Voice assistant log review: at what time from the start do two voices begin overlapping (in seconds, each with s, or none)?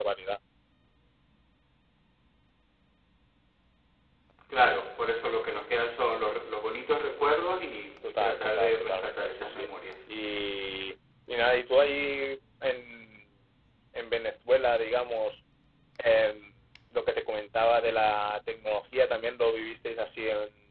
8.0 s